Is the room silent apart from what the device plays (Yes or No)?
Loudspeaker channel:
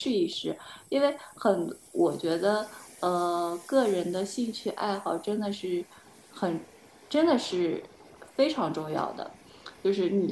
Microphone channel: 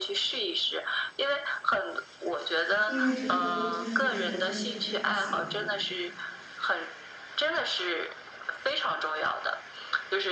No